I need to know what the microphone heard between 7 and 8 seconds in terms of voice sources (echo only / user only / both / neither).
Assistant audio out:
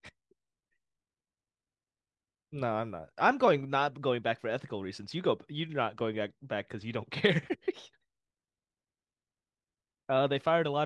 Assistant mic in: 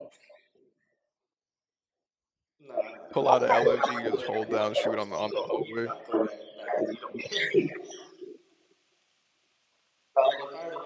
echo only